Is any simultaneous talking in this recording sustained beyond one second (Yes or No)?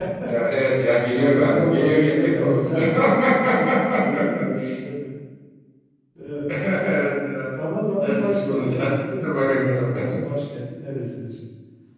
Yes